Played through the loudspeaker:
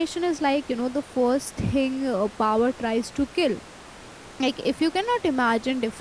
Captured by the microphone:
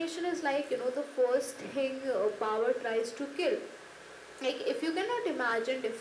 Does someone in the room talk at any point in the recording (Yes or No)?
No